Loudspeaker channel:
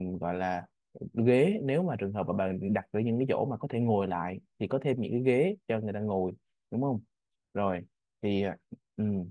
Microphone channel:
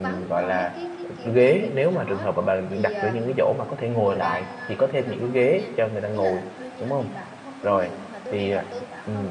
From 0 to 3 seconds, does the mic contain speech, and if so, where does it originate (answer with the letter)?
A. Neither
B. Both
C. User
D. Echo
B